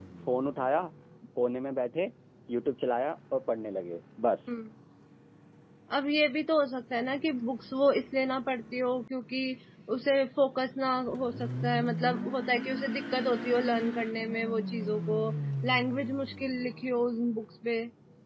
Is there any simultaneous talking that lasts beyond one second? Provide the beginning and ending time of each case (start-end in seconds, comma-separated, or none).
none